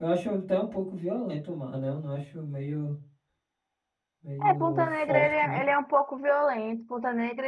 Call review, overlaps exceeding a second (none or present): present